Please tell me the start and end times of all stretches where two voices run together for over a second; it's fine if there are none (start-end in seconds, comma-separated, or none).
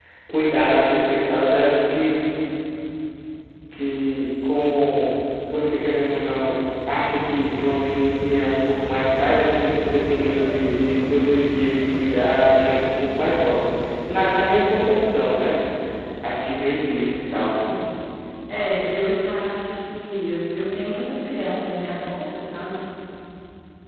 none